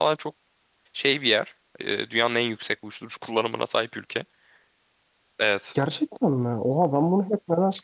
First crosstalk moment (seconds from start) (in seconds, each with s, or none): none